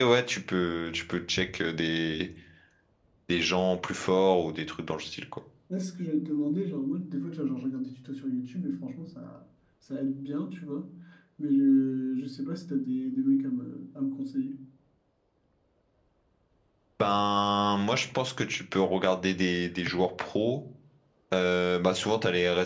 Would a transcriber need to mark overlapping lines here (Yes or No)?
No